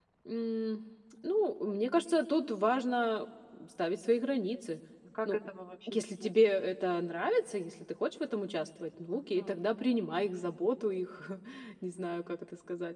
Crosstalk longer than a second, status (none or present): none